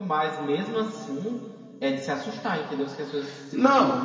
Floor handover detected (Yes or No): Yes